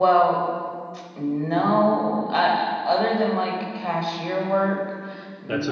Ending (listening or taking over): taking over